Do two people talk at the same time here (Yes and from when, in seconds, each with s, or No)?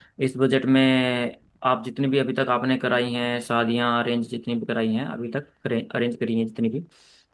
No